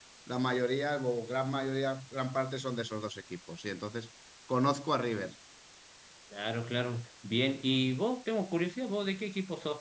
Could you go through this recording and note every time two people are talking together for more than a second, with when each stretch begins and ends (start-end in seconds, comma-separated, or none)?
none